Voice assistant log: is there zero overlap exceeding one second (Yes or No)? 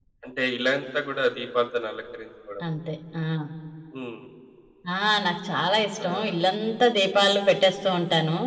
Yes